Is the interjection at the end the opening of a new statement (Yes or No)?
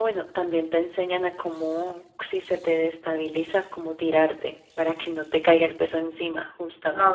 Yes